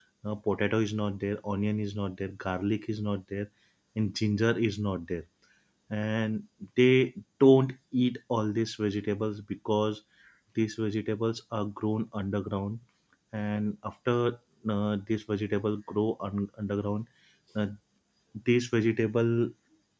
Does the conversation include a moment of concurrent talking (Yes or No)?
No